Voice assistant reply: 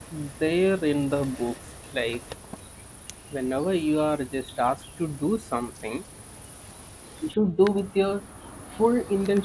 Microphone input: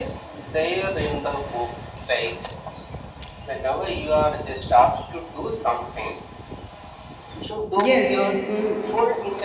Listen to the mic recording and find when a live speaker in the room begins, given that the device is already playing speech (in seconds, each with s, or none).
7.8 s